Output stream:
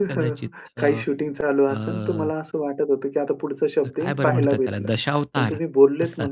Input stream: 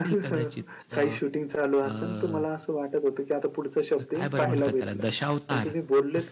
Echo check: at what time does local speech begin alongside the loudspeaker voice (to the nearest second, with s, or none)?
none